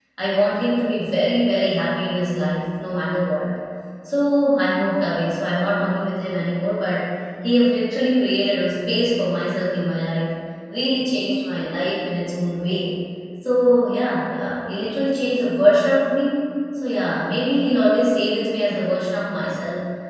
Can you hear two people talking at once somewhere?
No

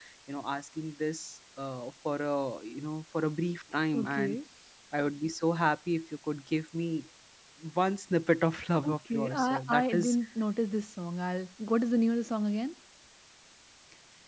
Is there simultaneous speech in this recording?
Yes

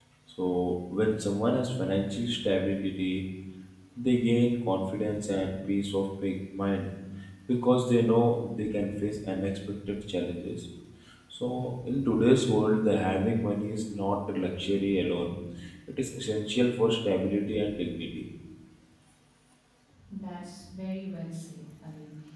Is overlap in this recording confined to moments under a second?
Yes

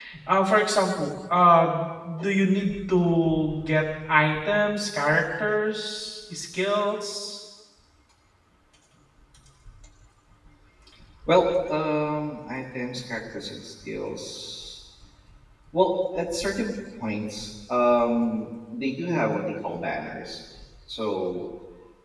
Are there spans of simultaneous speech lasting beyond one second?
No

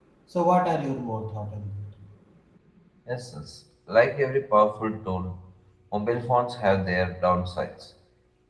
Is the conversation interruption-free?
Yes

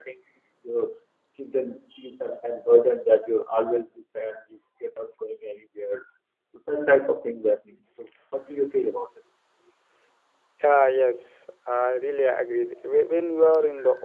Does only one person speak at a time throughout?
Yes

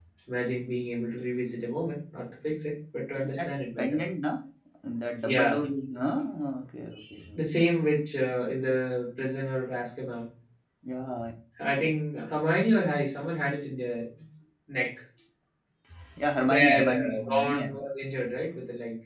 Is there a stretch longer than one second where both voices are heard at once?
Yes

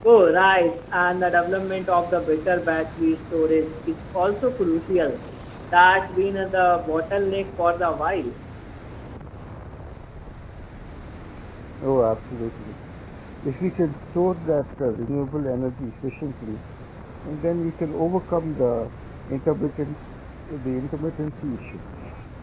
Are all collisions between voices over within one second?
Yes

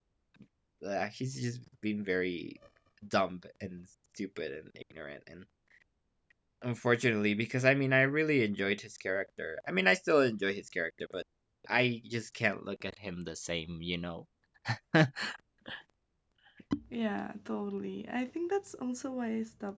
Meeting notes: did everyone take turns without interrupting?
Yes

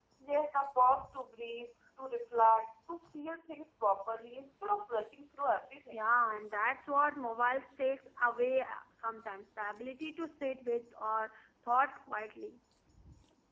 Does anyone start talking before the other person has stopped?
No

